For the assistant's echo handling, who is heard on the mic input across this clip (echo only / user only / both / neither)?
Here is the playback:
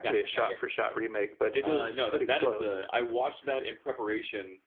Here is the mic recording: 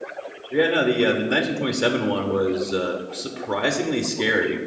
both